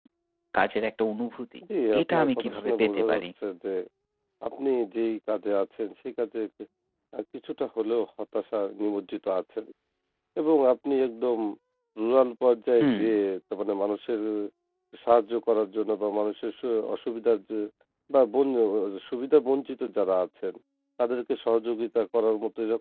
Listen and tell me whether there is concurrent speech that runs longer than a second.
Yes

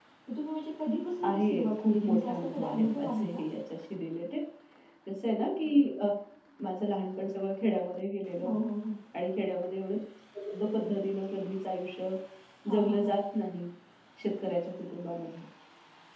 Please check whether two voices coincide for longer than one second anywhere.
Yes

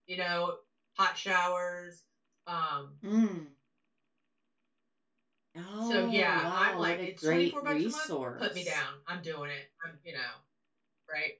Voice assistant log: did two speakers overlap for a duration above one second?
Yes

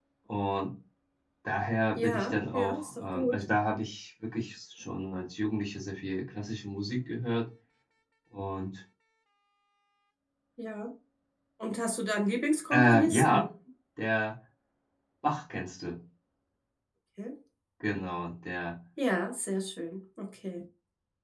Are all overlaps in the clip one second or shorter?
No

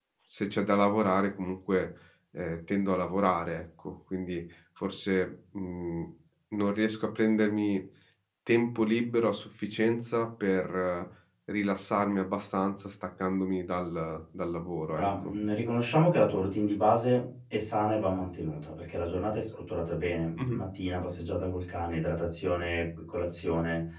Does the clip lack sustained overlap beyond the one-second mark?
Yes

